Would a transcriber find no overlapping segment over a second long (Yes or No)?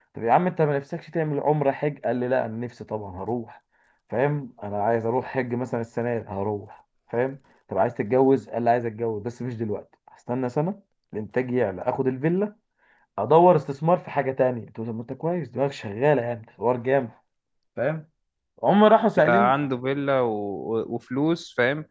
Yes